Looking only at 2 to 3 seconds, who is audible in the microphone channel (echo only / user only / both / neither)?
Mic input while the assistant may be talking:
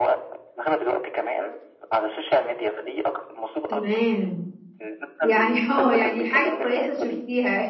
echo only